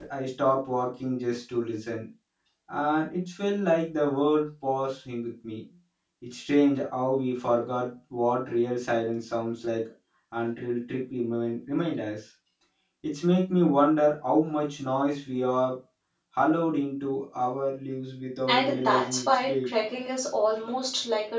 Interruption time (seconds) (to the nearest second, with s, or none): 18 s